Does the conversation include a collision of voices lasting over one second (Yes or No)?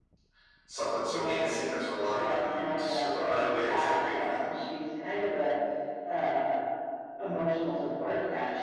Yes